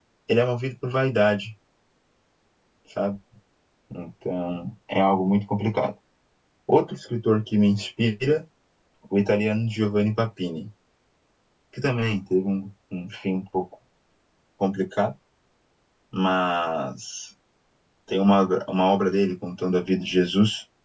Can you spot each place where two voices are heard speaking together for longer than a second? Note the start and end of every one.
none

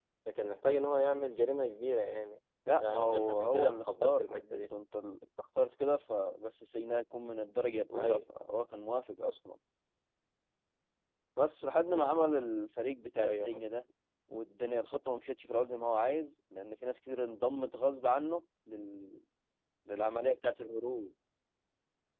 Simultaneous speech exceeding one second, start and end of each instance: 2.8-4.6

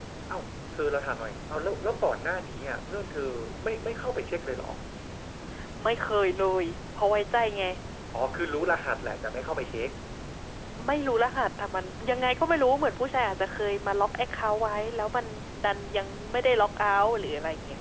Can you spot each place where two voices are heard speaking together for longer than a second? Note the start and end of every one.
none

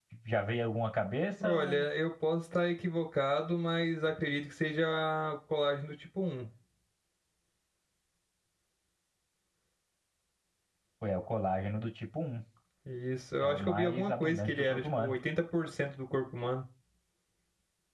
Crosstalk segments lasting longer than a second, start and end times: 13.4-15.2

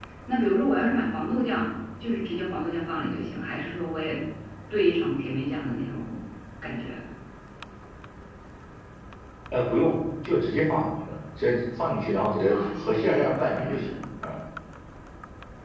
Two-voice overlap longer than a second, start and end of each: 12.5-13.9

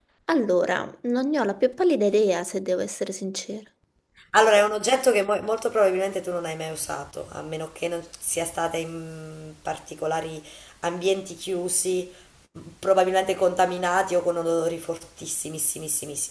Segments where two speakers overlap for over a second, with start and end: none

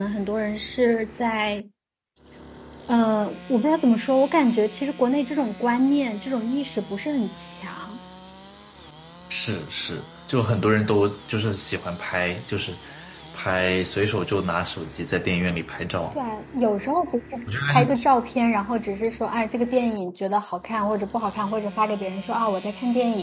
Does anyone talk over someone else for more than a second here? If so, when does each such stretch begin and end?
none

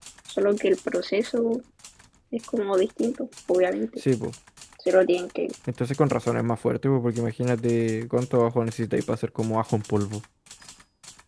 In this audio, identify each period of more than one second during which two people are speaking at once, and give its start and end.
none

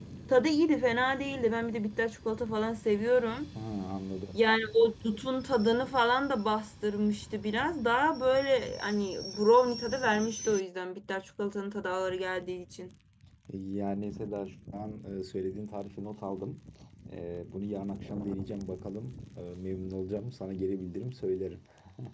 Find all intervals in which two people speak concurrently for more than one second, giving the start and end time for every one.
none

